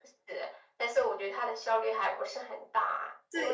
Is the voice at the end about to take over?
Yes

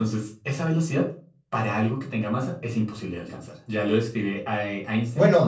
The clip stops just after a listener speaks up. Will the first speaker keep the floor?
No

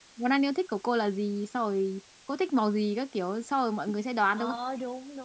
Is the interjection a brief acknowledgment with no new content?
No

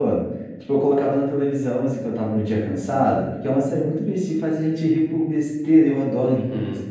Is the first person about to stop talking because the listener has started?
Yes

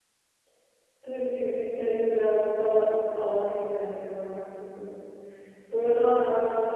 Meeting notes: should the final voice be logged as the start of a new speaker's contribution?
No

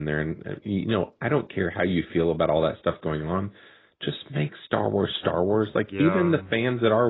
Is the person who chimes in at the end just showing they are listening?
Yes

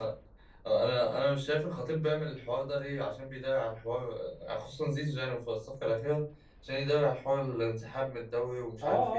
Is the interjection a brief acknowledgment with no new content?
No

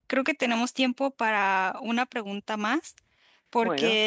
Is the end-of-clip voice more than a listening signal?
No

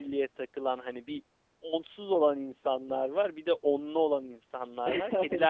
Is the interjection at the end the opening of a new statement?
No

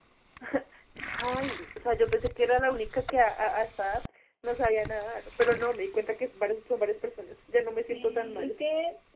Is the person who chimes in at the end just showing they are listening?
No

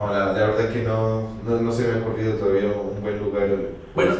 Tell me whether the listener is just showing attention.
No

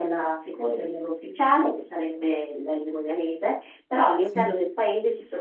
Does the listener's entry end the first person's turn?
No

